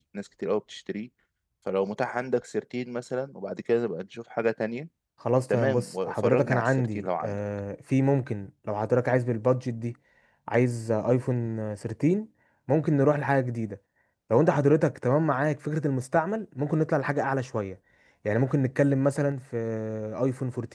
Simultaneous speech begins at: 6 s

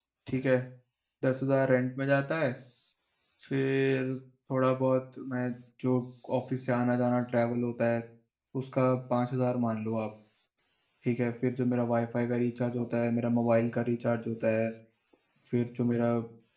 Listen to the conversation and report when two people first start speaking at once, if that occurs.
none

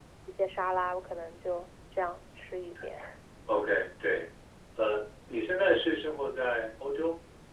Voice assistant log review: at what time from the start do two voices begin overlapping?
none

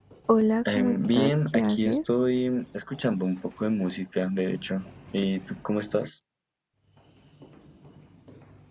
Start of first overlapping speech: 1 s

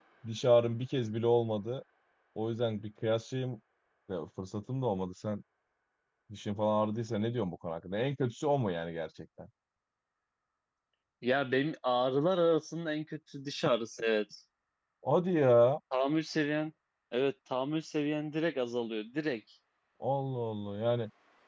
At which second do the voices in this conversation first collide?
none

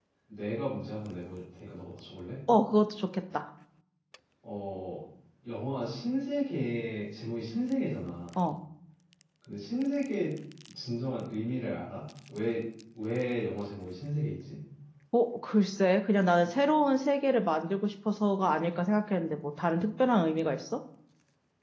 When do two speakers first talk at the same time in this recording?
none

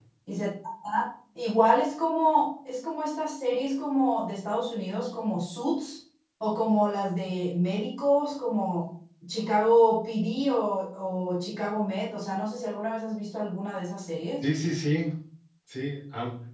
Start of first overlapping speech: none

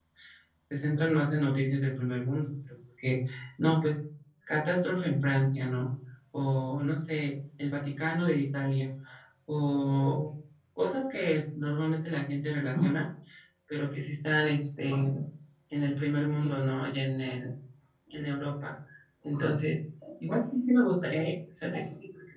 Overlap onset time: none

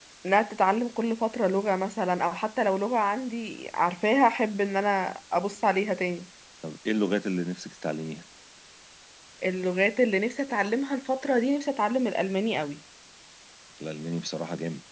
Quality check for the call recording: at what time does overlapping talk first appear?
none

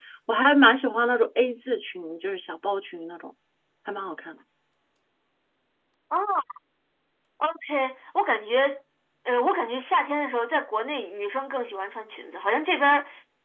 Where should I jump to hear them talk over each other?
none

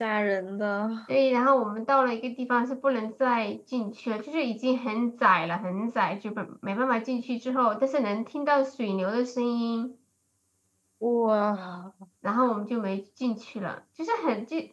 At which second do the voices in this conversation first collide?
none

